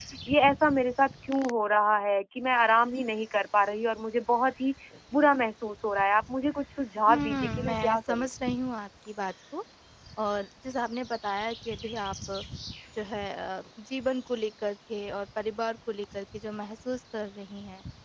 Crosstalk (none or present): present